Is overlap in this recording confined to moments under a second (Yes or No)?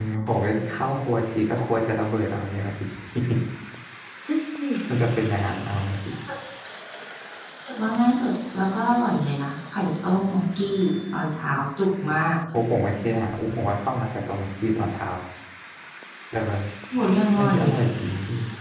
Yes